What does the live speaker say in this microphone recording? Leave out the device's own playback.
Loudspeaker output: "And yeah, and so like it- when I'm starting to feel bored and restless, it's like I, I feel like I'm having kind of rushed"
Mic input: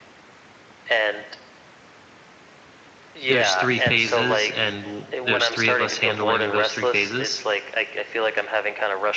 There's 3 phases and w there's 3 of us handling those 3 phases,

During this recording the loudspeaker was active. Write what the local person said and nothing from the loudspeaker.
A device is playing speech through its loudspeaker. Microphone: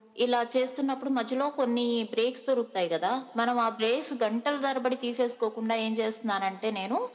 none

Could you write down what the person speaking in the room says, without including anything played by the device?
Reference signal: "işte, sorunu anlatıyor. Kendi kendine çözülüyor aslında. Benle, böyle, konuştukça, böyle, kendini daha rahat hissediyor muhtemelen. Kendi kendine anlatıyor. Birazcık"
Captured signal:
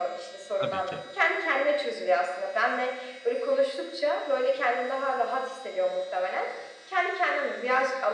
Tabii ki.

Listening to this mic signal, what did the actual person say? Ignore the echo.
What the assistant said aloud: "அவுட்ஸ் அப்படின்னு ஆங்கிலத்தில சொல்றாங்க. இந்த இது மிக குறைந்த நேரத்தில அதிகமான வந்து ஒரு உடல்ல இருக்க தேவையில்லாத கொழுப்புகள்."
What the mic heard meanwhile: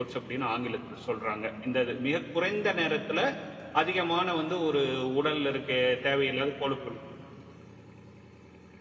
none

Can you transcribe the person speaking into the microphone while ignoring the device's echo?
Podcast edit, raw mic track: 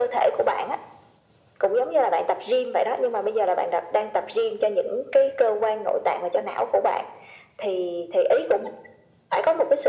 none

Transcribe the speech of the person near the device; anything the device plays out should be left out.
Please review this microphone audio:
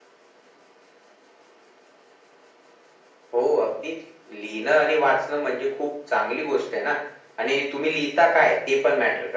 none

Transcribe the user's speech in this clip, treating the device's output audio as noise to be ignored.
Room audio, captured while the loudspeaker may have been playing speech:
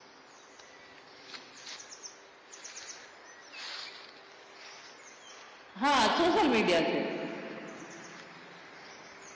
हाँ सोशल मीडिया से

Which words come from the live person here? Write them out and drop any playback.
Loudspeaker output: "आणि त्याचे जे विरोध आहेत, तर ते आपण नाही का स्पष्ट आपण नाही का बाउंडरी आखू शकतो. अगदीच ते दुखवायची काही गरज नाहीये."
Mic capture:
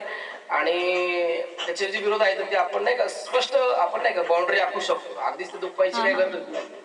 हां, हां.

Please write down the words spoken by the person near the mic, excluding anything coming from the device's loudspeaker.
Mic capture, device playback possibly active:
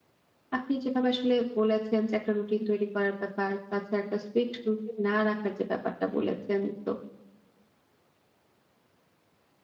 আপনি যেভাবে আসলে বলেছেন যে একটা রুটিন তৈরি করার ব্যাপার, তাছাড়া একটা স্ট্রিক্ট রুটিন না রাখার যে ব্যাপারটা বলেছেন, তো

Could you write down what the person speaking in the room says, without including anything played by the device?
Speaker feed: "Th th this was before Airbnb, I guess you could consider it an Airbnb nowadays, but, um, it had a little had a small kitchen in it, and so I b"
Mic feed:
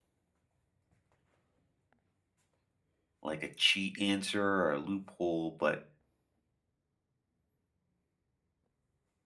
like a cheat answer or a loophole, but

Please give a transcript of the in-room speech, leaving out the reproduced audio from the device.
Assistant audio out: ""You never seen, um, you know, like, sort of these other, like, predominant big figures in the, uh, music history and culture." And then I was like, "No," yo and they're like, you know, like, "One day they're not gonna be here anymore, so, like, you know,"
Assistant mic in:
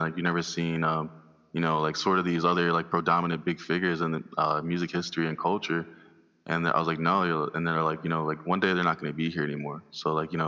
none

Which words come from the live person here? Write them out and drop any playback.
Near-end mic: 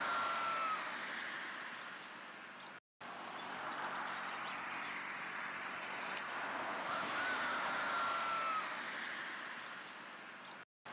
none

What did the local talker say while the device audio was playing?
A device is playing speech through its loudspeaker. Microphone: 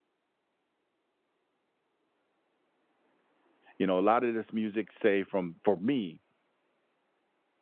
You know, a lot of this music, say from for me,

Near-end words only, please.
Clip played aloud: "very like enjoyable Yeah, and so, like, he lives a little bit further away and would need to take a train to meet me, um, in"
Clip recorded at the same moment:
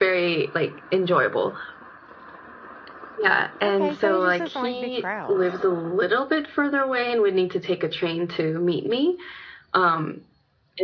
Okay, so he just doesn't like big crowds.

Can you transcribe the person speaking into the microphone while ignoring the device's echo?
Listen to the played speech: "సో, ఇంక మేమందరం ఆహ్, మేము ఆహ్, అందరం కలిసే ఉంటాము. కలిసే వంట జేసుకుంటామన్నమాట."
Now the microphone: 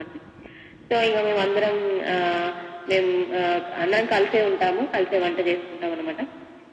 none

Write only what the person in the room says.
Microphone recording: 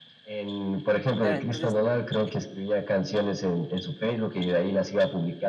Claro, entonces, eh,

